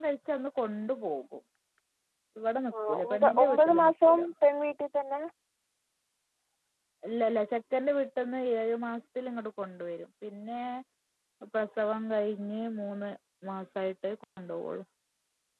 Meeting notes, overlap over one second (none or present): present